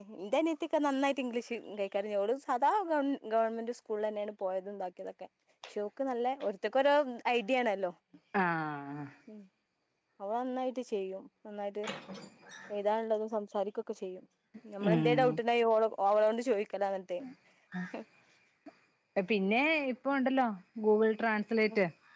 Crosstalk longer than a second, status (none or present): none